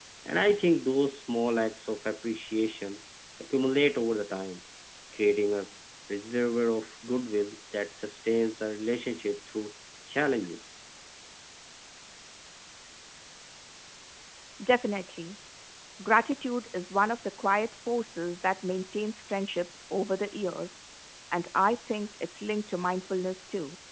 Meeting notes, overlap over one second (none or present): none